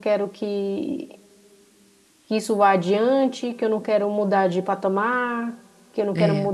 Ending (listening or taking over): listening